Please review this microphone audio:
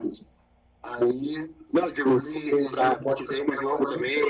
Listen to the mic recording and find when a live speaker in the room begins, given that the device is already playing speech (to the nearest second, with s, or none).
none